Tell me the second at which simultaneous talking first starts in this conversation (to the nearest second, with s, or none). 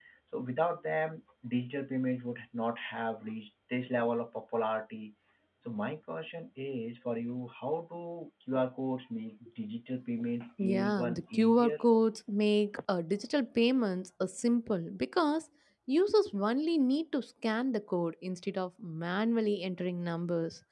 11 s